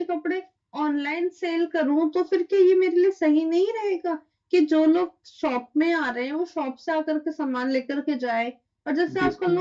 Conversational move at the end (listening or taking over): listening